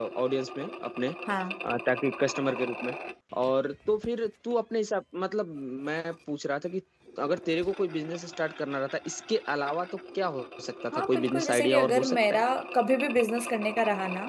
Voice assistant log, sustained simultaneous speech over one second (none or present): present